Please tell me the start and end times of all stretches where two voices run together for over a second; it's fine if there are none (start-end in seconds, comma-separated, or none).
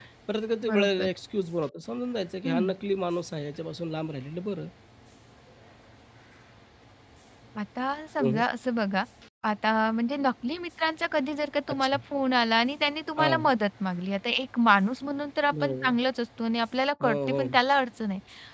none